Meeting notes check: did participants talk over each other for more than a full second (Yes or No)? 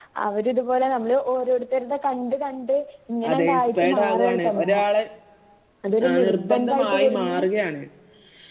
Yes